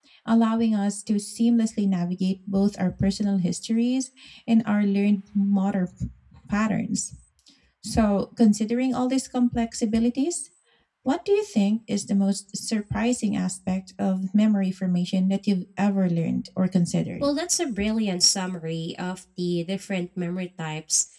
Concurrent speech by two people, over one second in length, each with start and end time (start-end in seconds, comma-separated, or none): none